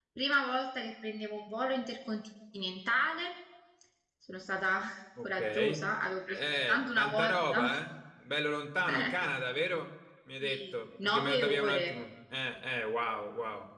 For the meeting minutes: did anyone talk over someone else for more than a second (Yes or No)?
Yes